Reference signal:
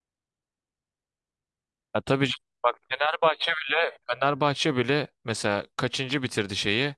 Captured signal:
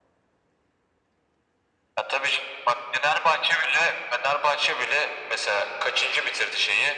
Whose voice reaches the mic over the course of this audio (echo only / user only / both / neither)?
echo only